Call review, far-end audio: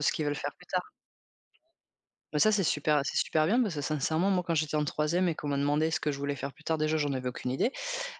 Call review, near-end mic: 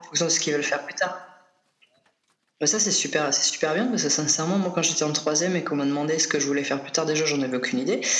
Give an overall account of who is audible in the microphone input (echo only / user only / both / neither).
echo only